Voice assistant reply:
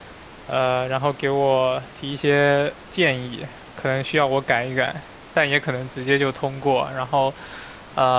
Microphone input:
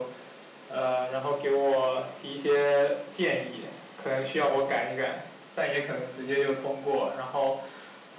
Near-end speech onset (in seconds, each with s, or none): none